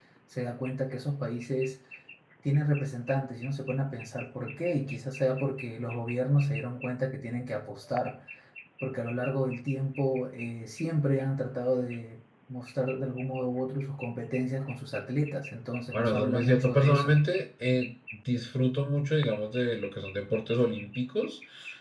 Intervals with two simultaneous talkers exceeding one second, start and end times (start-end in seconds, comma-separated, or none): 15.9-17.1